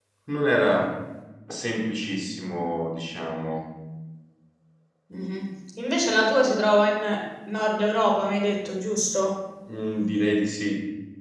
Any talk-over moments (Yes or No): No